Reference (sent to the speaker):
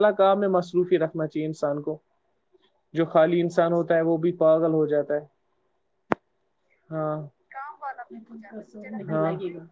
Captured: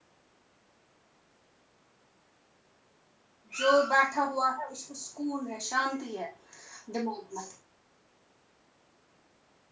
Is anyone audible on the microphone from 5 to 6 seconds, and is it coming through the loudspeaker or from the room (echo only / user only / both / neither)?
user only